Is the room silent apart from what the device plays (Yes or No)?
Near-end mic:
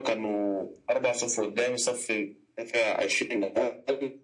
Yes